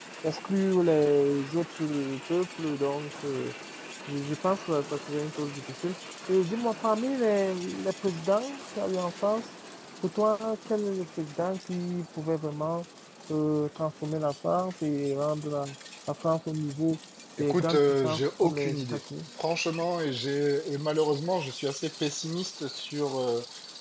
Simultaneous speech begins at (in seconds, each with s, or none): 17.4 s